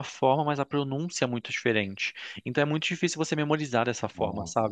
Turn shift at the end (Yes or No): No